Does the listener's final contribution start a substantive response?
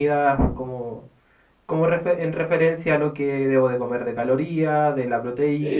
No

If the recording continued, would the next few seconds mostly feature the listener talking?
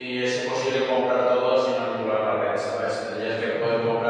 No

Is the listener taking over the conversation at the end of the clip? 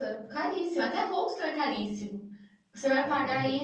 No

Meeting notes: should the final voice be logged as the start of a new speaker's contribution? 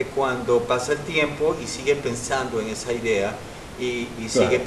No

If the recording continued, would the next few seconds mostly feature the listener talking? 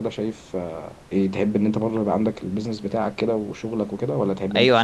Yes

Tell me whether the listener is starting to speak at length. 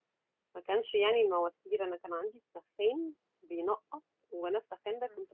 No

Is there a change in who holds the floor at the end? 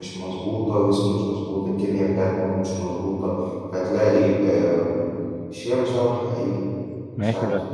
Yes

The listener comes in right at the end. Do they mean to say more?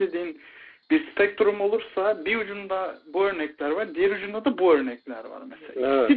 No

